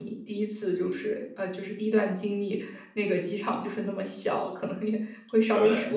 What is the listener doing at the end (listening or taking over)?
listening